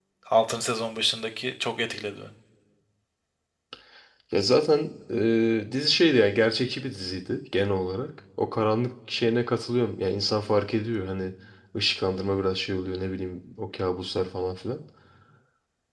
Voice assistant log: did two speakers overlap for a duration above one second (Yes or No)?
No